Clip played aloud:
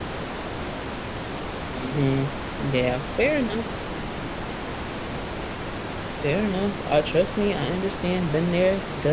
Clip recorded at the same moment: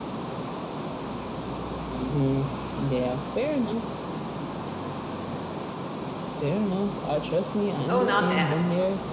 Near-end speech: present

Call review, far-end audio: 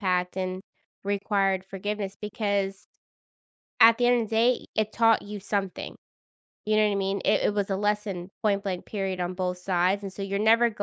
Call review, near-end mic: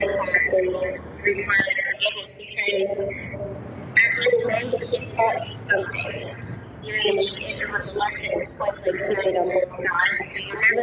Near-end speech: none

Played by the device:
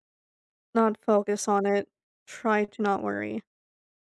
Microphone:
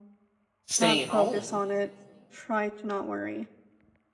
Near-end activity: present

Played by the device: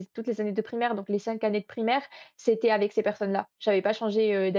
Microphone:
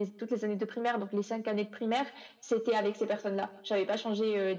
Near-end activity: none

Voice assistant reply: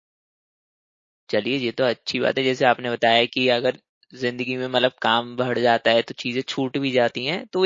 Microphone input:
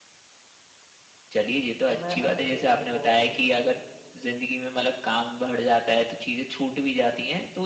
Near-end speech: present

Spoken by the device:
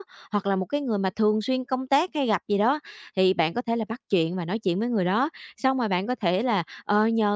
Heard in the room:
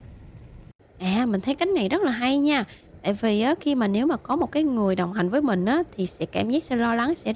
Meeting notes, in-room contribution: present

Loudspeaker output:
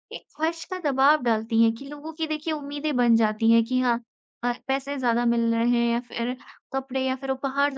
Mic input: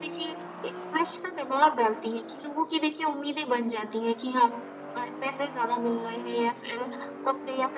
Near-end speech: none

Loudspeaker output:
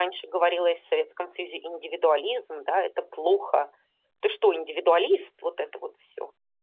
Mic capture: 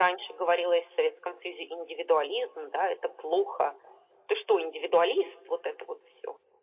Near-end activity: none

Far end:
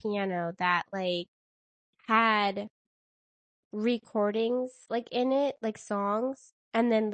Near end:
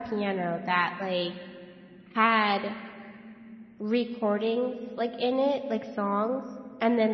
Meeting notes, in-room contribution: none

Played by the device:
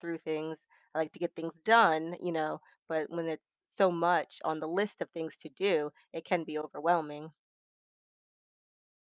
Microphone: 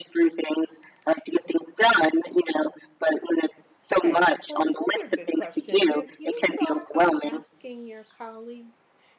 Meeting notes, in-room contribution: present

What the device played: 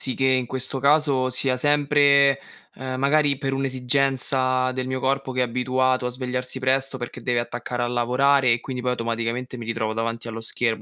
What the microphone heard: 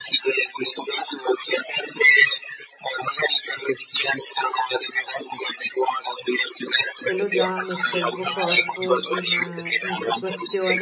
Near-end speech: present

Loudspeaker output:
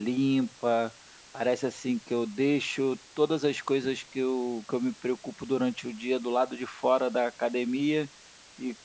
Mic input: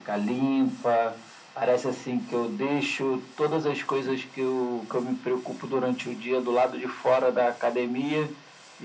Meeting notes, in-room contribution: none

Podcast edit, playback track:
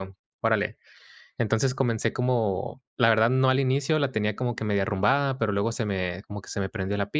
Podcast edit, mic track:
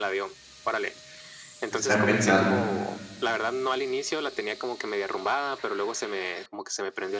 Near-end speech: present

